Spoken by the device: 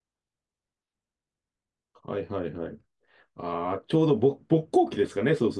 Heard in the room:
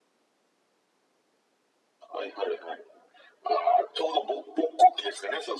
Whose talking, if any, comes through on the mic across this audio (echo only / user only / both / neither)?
echo only